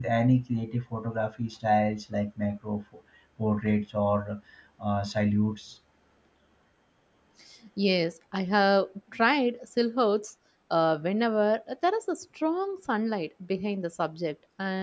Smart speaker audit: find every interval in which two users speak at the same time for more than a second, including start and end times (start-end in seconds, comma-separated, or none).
none